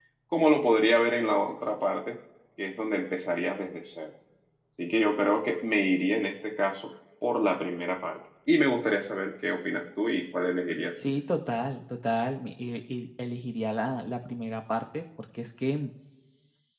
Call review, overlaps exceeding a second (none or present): none